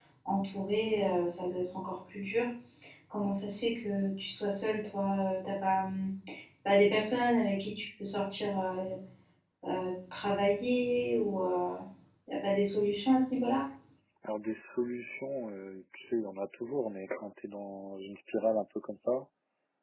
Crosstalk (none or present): none